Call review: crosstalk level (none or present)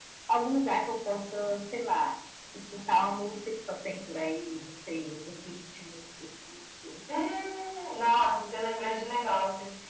none